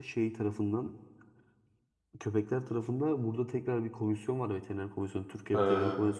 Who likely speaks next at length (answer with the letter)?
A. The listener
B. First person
B